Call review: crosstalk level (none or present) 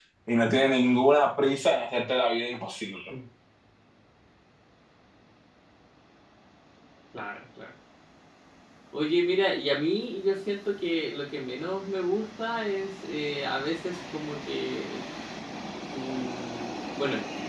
none